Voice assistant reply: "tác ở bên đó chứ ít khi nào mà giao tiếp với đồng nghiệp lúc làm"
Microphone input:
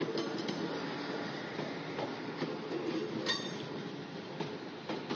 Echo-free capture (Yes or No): Yes